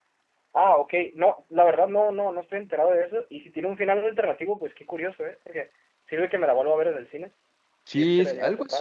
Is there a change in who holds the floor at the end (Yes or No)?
Yes